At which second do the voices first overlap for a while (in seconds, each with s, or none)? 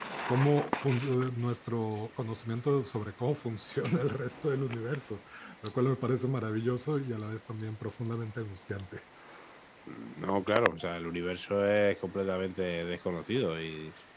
none